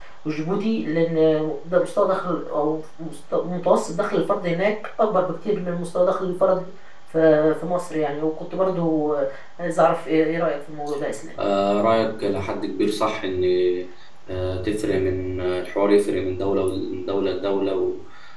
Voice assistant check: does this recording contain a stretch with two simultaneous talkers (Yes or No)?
No